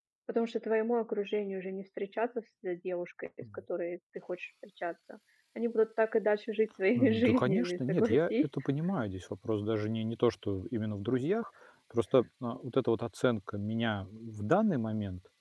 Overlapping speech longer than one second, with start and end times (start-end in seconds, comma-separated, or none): 7.0-8.4